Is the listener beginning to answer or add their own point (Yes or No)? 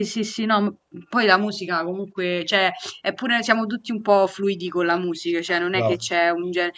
No